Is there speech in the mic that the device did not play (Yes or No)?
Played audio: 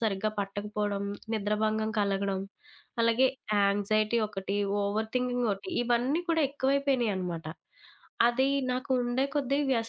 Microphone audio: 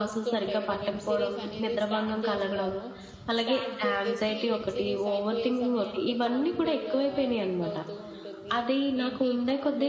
Yes